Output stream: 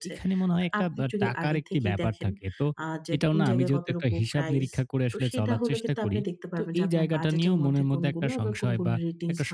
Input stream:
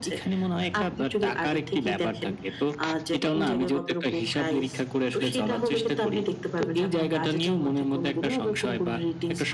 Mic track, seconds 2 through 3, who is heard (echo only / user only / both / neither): echo only